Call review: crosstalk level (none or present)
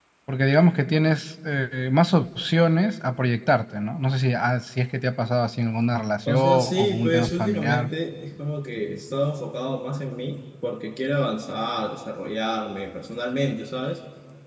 present